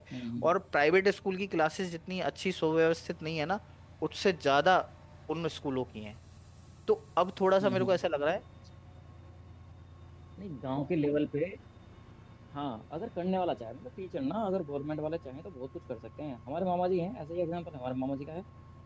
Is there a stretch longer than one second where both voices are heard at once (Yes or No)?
No